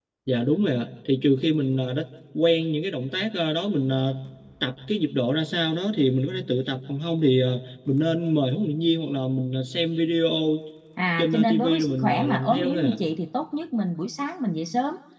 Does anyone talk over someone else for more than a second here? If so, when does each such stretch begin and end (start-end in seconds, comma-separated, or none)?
11.2-12.9